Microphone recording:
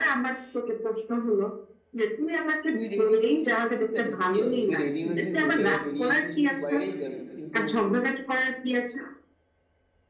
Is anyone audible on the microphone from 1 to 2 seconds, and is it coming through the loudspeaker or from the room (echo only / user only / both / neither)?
echo only